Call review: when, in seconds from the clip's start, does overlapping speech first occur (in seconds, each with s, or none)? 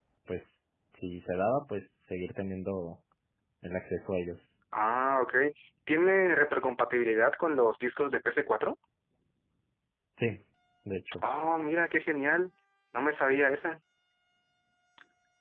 none